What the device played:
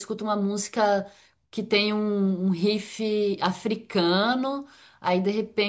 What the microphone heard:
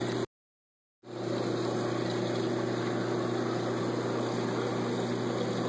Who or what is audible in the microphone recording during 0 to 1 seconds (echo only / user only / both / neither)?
neither